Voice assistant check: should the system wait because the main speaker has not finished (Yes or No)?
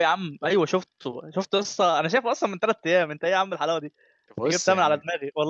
Yes